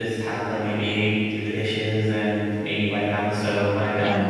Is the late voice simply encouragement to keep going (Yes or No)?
No